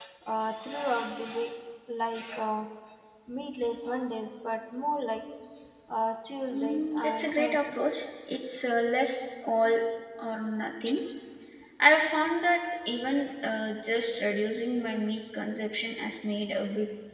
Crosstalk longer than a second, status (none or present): present